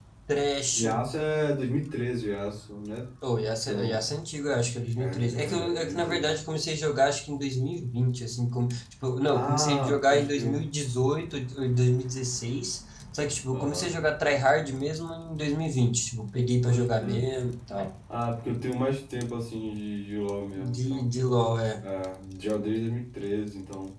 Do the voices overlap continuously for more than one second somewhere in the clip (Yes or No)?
Yes